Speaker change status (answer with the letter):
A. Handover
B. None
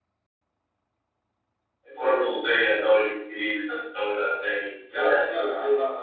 A